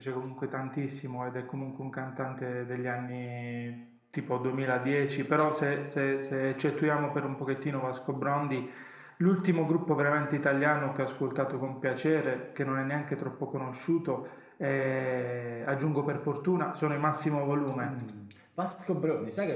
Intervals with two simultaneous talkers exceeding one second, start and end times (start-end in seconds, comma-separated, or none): none